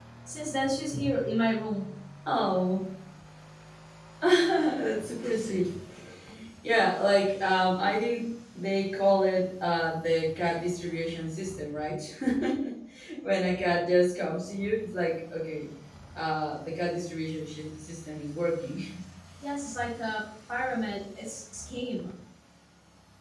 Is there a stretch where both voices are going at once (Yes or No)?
No